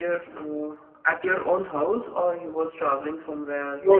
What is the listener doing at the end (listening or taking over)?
taking over